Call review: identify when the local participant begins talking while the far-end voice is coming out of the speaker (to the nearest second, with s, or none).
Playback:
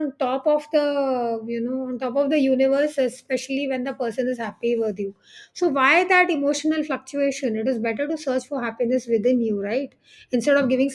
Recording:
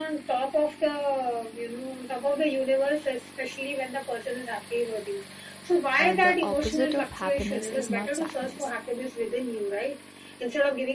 6 s